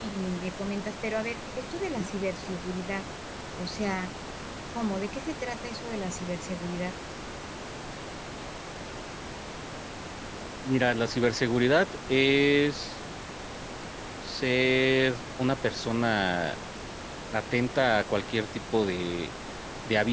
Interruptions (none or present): none